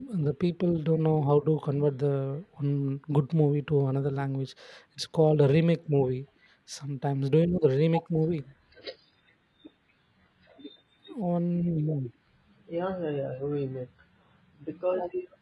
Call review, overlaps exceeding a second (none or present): none